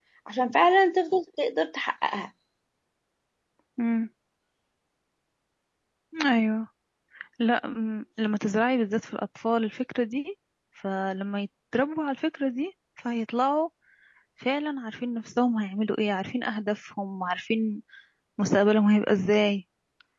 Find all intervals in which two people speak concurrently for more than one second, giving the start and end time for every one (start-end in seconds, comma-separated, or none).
none